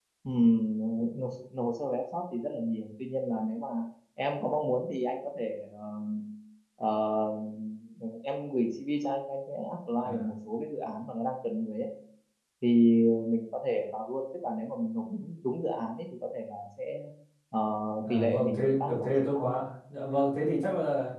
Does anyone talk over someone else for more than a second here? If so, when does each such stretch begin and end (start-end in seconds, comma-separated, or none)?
18.1-19.6